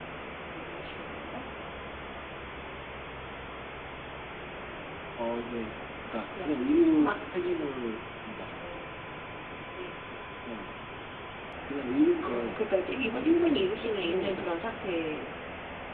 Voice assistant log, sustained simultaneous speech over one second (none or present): present